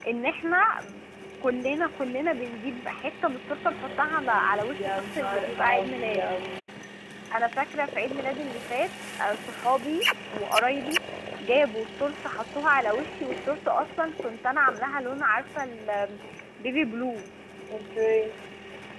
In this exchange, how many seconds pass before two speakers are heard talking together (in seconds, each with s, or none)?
4.8 s